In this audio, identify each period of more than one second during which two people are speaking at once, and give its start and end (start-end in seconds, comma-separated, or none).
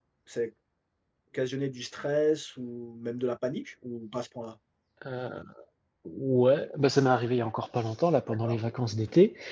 none